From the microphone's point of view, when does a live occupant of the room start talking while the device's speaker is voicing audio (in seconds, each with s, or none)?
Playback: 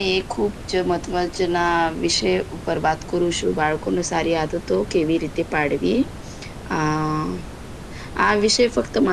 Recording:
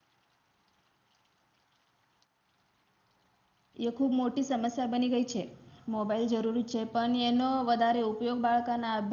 3.9 s